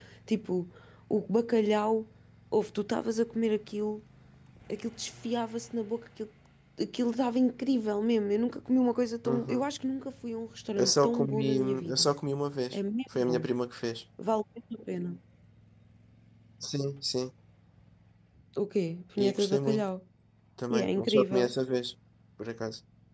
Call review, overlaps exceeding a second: present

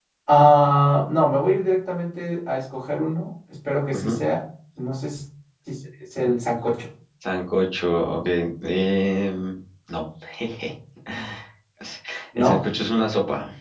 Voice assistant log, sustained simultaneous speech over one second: none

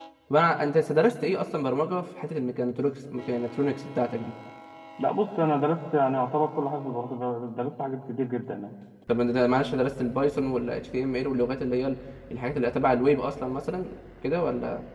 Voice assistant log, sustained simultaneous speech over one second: none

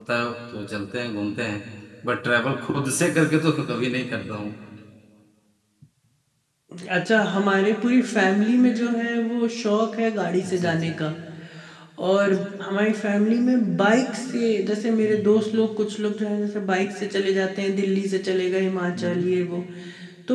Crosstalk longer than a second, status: none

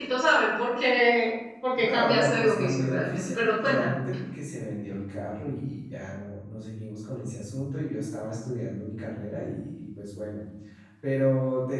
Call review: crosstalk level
present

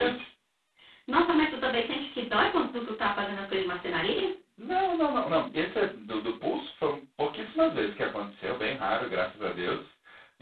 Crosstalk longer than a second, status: none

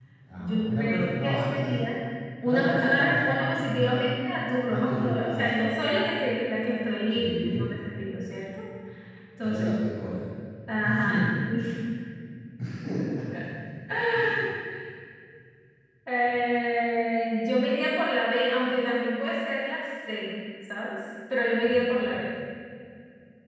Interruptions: present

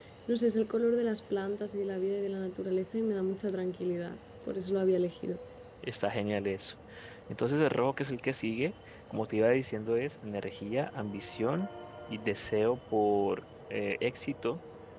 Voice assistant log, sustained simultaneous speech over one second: none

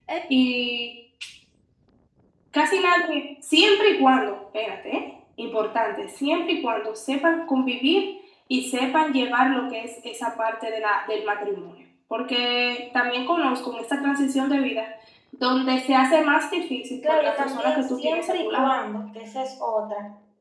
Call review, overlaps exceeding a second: present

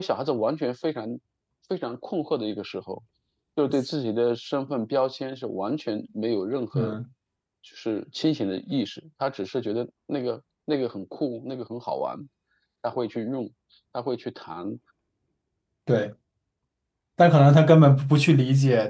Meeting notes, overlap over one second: none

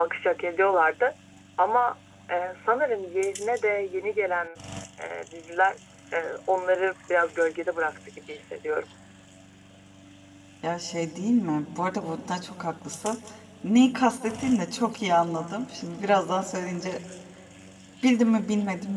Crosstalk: none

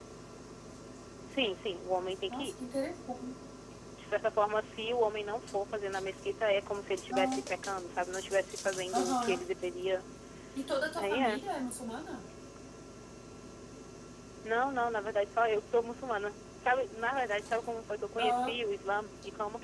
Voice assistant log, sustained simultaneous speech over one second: none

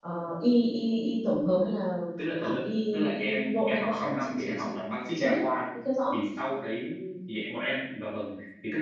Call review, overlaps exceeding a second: present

